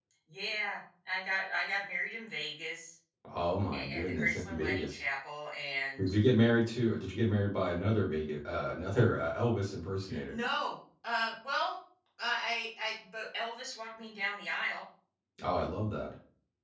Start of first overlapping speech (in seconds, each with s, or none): 3.7 s